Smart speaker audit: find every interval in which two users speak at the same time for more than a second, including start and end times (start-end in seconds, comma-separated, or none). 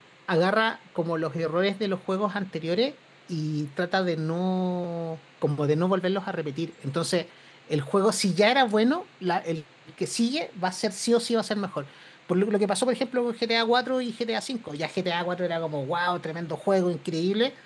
none